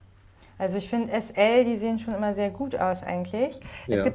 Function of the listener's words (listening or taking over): listening